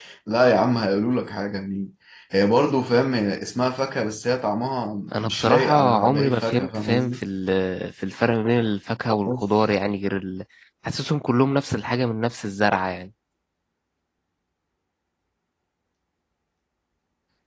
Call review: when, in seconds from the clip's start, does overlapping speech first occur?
5.1 s

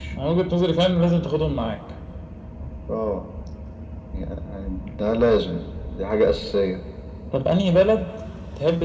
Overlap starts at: none

